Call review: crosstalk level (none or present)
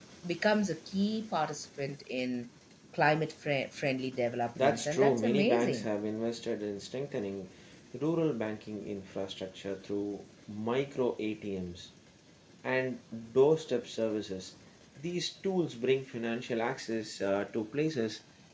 present